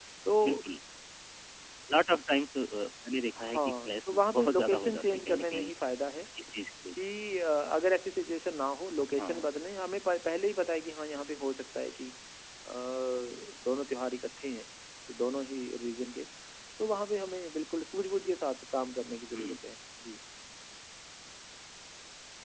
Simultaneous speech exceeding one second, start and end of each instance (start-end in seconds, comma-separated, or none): 3.4-5.7